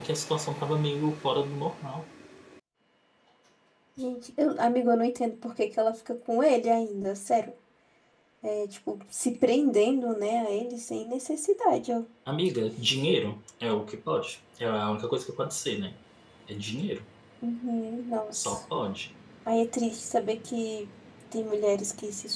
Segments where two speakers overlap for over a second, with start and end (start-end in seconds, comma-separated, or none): none